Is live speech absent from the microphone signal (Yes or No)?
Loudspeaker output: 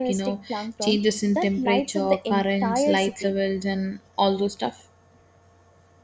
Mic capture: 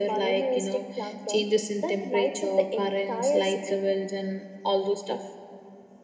Yes